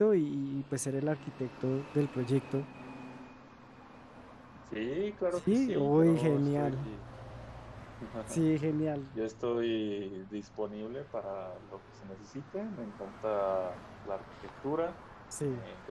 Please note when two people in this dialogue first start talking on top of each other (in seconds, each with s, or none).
5.5 s